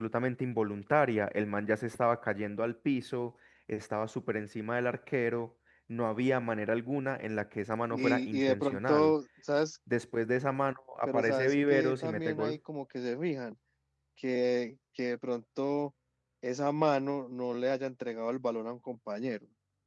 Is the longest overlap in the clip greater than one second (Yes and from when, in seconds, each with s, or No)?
Yes, from 7.9 s